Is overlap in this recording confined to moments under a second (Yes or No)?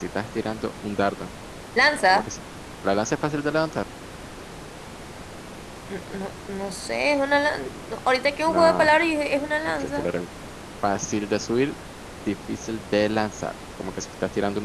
Yes